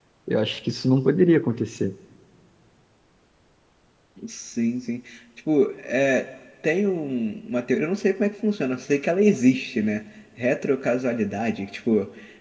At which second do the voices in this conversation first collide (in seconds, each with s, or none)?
none